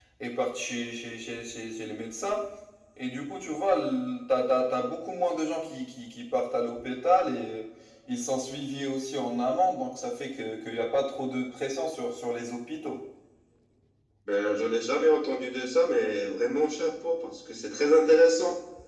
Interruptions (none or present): none